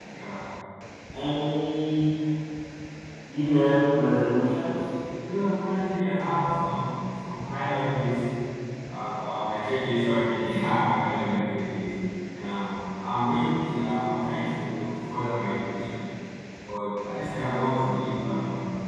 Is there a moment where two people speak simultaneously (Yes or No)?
No